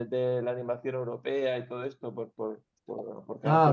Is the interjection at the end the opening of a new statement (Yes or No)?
No